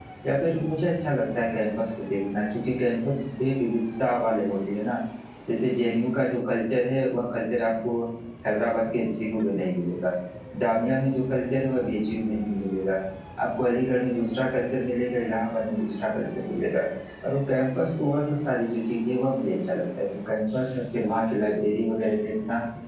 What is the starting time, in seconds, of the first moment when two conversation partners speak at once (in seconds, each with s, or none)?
none